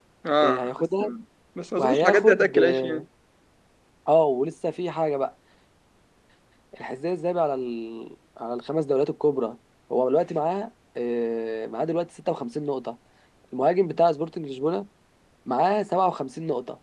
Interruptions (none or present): present